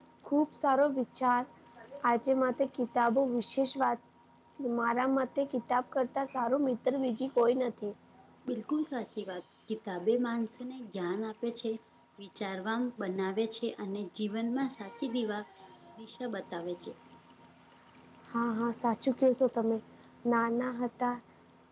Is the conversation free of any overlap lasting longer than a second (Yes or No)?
Yes